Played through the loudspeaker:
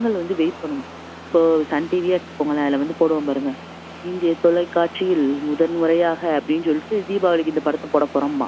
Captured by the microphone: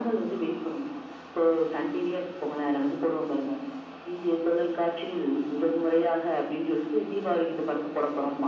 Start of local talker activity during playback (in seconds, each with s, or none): none